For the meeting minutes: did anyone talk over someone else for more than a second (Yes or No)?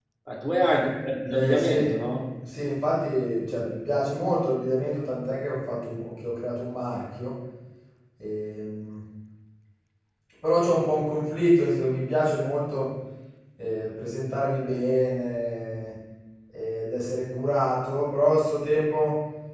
No